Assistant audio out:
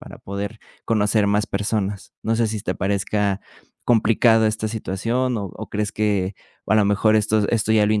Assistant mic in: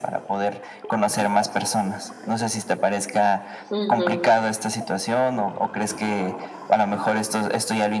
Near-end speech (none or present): present